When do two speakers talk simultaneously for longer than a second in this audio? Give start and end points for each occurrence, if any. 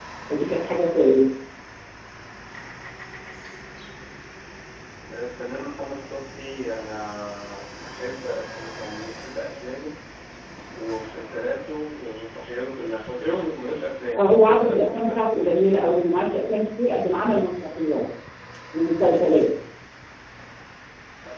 14.2-15.6

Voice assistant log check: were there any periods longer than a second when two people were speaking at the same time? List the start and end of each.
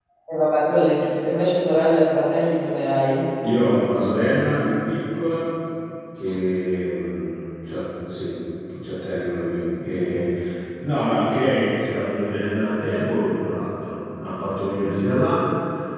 none

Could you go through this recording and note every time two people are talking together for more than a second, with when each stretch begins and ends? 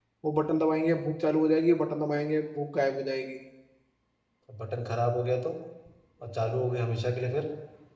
none

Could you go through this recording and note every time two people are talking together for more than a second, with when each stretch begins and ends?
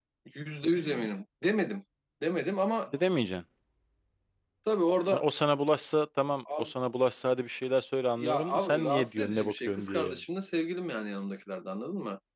8.2-10.2

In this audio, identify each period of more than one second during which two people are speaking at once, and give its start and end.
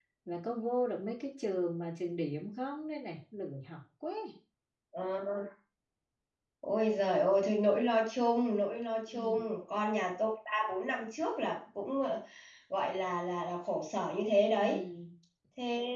none

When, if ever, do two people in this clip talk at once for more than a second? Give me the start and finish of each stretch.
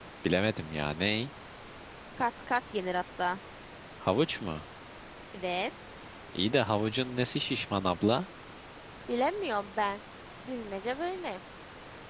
none

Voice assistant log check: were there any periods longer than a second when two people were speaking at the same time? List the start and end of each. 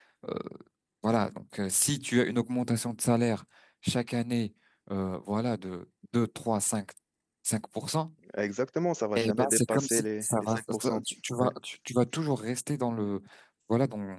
9.2-11.0

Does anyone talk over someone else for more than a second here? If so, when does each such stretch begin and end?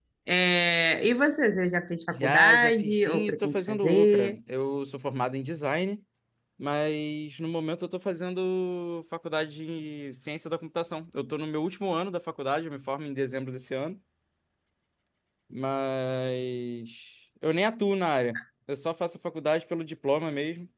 2.1-4.4

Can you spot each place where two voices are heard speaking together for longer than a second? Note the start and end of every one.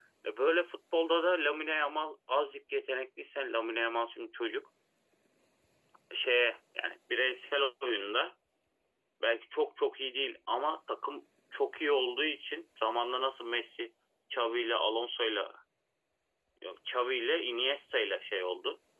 none

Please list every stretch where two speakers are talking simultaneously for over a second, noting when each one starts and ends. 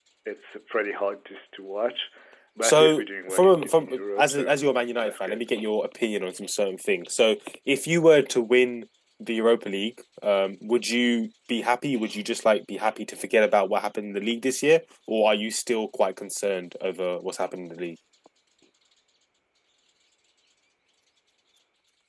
2.6-4.4

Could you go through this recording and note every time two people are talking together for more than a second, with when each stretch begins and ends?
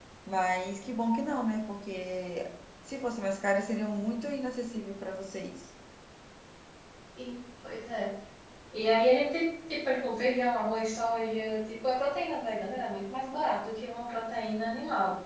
none

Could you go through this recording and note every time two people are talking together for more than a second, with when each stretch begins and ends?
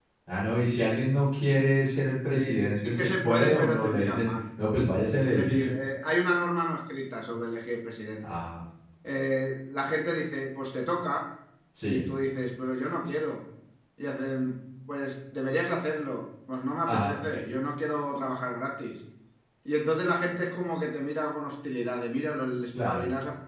2.3-4.3

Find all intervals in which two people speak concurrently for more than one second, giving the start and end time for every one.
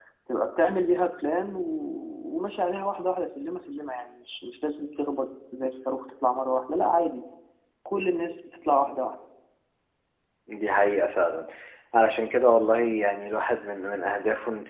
none

